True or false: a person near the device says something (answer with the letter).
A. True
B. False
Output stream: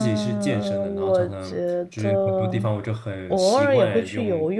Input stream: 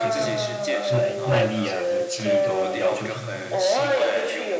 A